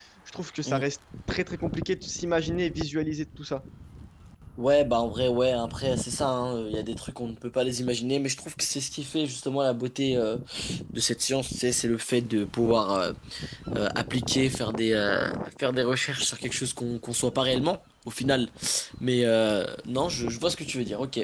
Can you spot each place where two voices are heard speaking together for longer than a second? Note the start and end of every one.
none

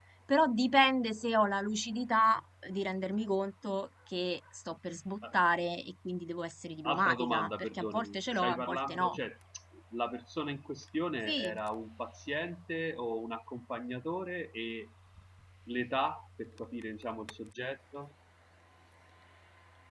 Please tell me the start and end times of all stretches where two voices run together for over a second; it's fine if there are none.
6.8-9.2

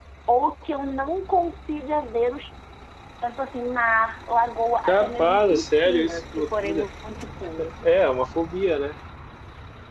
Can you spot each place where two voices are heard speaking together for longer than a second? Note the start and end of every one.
4.9-6.9

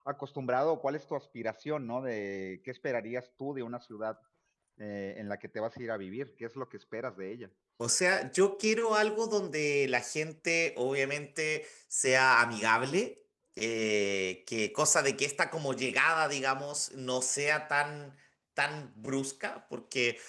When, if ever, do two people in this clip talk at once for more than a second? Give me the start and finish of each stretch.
none

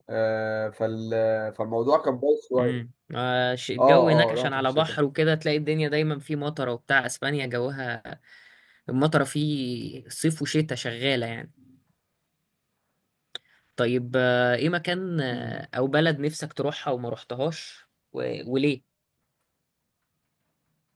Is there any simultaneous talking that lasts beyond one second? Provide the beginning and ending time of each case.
3.8-5.0

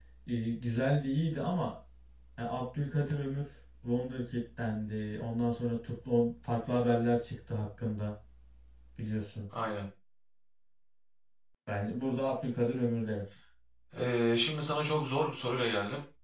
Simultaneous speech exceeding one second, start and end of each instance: none

